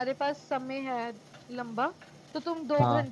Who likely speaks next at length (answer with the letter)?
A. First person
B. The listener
A